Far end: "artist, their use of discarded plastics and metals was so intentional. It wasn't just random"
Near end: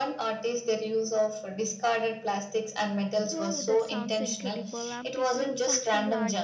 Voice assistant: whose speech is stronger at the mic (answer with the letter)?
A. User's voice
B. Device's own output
B